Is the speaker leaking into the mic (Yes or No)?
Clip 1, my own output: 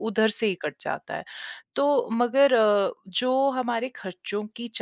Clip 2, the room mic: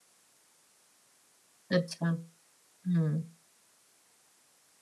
No